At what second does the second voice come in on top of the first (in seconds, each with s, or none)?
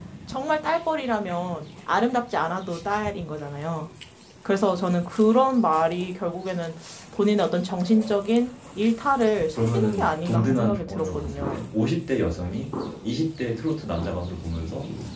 9.6 s